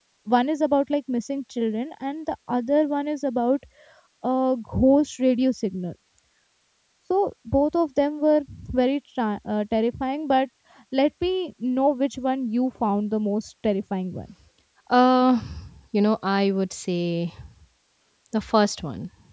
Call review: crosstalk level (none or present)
none